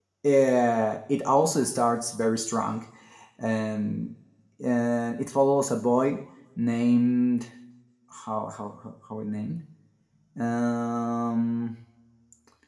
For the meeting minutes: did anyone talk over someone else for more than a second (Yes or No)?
No